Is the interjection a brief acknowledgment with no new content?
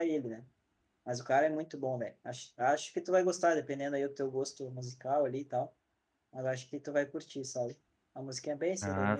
No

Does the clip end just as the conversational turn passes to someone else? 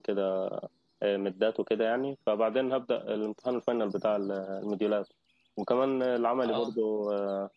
No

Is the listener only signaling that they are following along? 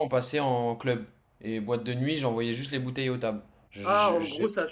No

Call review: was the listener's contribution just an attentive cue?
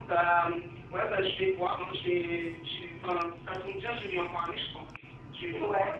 No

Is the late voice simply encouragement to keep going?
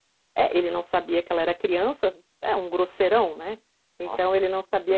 Yes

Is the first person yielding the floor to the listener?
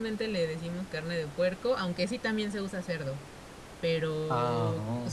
No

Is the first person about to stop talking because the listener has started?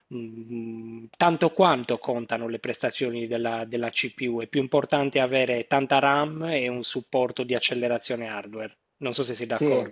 Yes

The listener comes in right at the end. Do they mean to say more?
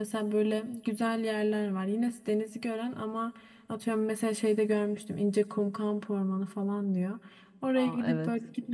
No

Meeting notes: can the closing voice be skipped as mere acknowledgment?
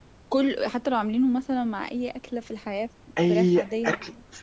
No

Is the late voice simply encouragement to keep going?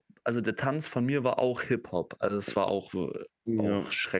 No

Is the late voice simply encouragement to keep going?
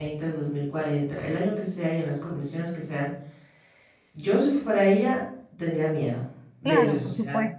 No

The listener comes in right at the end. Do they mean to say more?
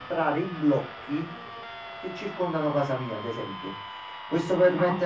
No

